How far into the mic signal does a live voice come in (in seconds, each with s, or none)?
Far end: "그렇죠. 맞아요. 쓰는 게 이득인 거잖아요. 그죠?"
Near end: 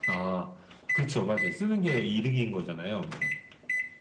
none